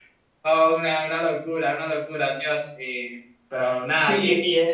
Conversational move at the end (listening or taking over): taking over